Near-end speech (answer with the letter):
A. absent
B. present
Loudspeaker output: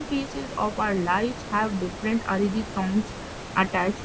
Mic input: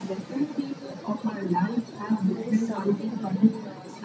B